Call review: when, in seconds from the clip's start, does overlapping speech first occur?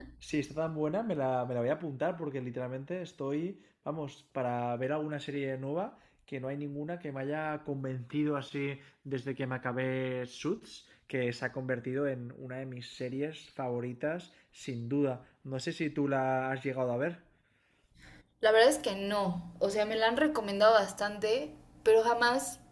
none

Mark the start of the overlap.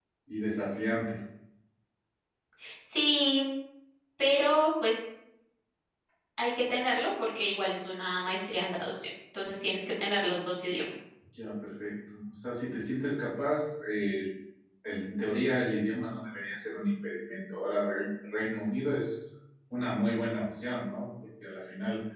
none

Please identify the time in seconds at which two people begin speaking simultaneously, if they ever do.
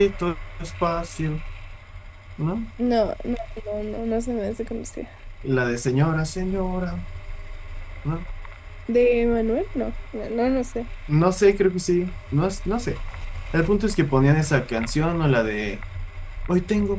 none

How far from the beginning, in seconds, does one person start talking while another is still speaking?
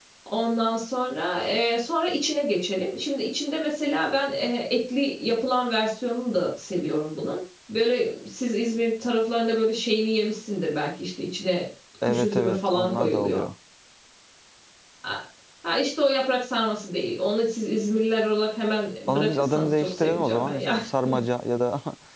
12.0 s

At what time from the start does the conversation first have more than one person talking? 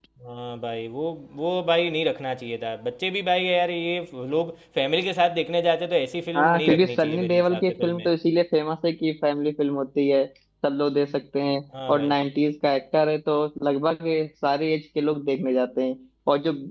6.4 s

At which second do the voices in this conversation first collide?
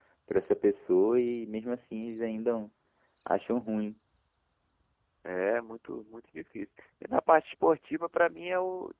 none

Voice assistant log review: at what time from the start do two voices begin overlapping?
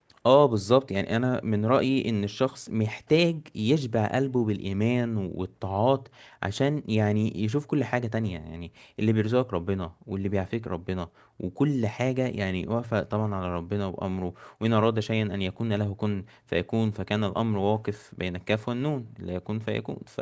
none

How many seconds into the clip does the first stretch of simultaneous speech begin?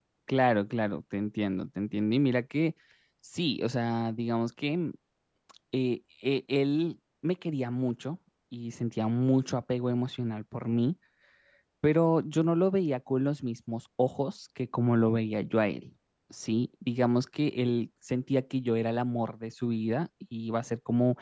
none

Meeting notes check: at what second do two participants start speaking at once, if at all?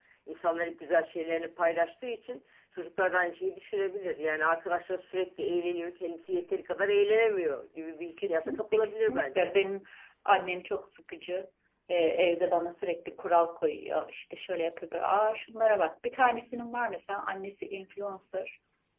8.2 s

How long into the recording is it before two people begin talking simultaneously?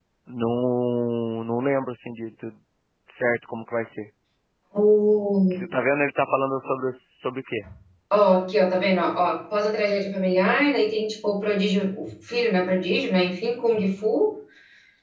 none

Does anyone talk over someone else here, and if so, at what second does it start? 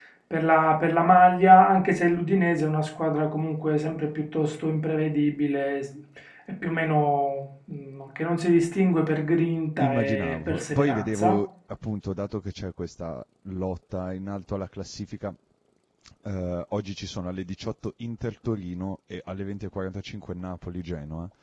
9.8 s

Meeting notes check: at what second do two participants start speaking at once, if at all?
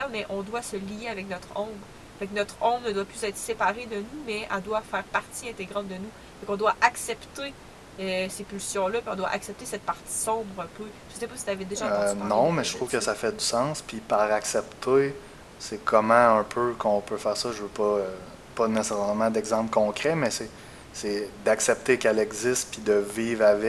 11.8 s

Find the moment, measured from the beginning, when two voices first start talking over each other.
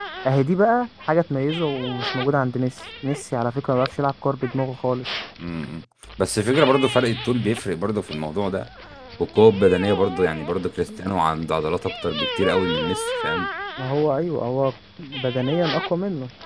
none

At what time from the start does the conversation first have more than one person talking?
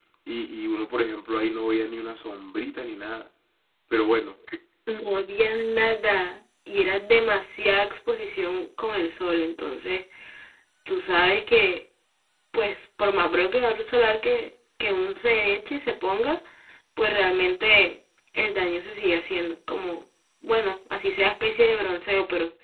none

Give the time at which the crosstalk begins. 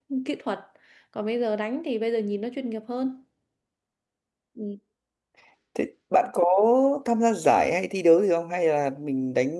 none

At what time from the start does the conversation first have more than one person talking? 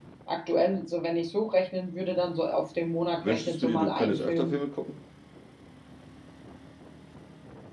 3.2 s

